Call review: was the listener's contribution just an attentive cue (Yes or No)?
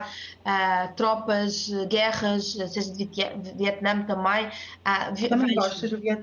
No